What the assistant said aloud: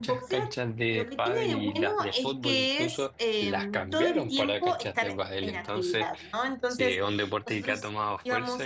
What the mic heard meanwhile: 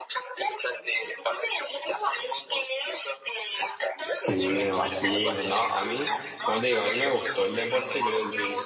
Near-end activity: present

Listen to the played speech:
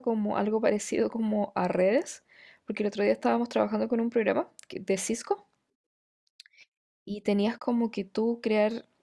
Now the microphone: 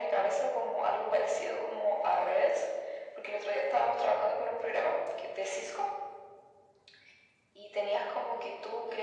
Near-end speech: none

